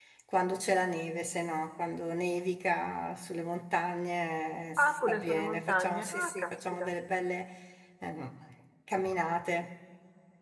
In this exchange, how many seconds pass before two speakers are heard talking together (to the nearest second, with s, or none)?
5 s